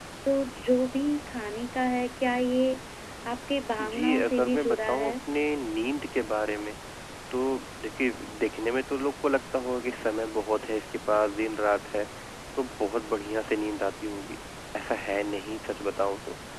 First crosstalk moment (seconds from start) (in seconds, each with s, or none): 3.8 s